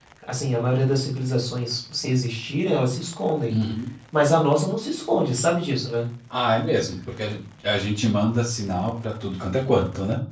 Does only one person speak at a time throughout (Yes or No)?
Yes